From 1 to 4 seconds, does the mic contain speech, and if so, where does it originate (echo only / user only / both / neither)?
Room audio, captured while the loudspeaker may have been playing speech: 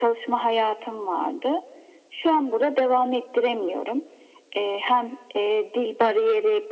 echo only